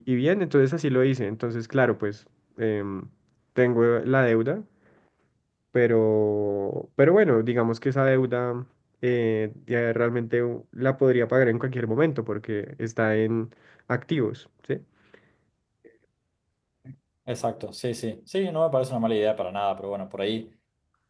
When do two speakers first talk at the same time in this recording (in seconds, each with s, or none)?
none